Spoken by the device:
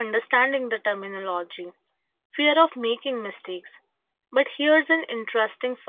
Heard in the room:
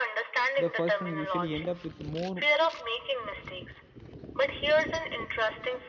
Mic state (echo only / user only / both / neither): both